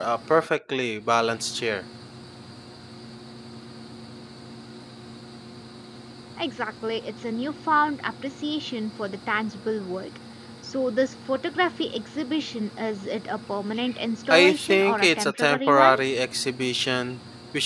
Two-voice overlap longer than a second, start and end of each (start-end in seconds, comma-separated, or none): 14.3-15.9